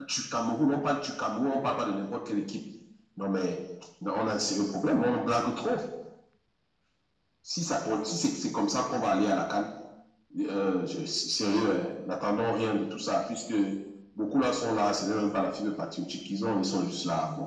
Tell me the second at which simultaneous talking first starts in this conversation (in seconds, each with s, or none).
none